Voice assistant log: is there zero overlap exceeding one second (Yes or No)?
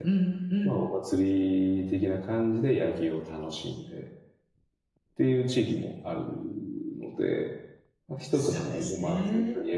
No